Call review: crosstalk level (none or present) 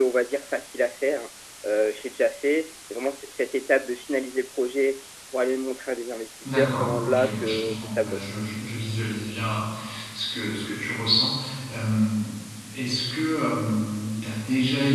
present